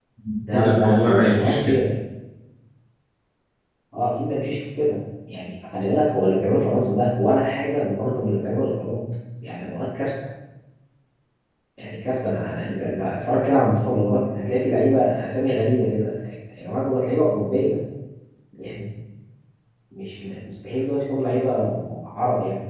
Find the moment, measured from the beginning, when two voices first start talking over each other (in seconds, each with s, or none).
0.5 s